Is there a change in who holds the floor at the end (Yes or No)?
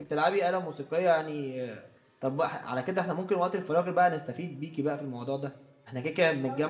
No